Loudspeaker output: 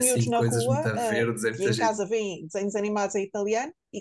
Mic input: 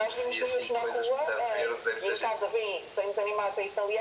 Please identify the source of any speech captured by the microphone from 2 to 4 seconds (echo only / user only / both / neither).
echo only